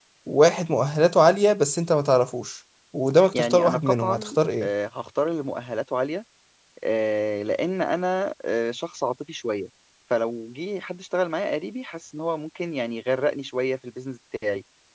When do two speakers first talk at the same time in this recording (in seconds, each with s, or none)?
3.3 s